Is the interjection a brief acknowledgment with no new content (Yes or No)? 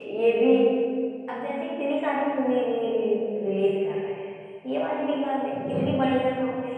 Yes